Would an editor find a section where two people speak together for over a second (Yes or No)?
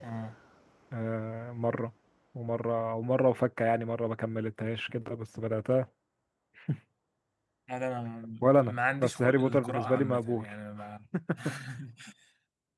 Yes